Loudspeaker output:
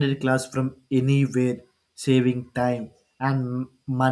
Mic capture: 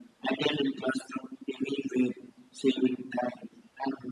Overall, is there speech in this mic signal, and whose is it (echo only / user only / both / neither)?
echo only